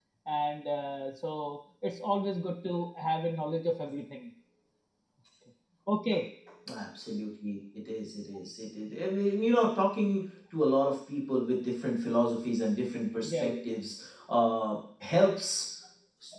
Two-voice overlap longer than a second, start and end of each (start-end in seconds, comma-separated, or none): none